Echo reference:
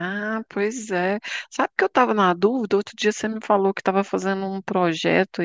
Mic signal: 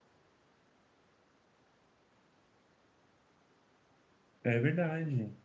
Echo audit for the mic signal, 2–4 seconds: neither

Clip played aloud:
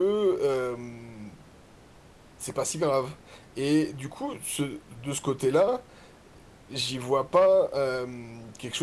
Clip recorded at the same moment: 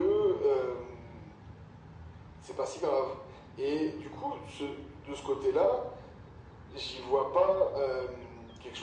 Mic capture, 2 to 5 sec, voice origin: echo only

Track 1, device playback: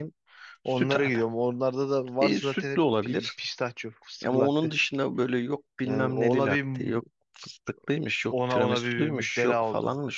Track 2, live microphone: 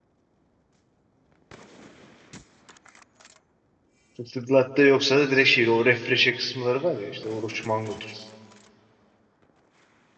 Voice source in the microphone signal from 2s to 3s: neither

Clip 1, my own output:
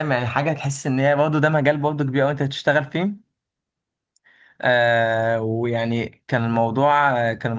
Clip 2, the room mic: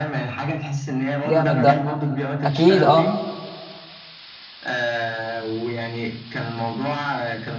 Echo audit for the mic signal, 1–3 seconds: both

